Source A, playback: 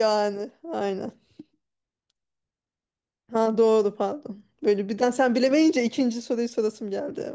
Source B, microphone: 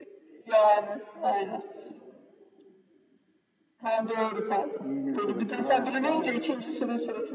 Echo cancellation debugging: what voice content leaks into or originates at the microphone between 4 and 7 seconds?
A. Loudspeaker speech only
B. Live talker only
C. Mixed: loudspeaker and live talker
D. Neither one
C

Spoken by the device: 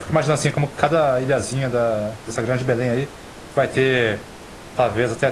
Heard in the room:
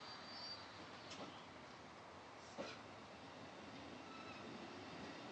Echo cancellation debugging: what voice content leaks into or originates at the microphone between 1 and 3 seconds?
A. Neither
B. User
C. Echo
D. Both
A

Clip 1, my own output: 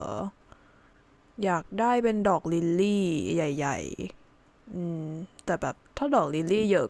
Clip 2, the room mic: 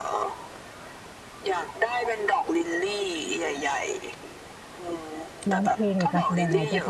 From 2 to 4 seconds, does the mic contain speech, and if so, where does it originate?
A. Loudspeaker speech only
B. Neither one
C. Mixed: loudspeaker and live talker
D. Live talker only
A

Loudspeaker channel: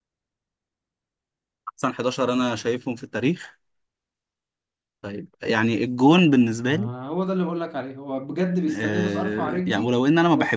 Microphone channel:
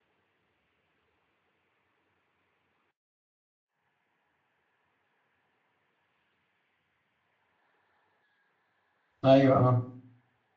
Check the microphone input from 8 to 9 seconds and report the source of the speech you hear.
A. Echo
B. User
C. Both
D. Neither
D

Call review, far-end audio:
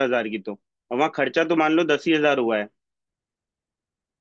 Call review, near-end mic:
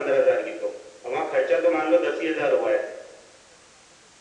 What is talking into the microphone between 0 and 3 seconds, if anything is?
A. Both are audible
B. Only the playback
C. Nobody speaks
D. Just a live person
B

